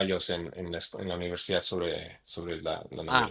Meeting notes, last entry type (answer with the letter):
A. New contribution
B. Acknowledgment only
A